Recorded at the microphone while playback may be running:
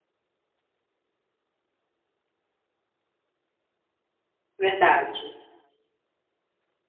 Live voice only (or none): verdade,